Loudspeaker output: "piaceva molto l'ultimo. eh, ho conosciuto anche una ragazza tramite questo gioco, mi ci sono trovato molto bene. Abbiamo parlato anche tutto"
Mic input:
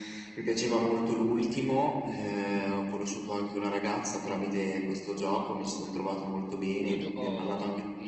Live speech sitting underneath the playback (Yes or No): Yes